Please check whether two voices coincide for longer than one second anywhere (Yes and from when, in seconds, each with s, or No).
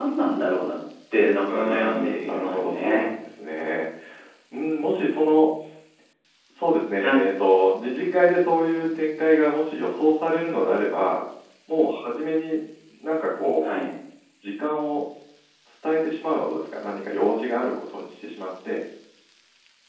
Yes, from 1.5 s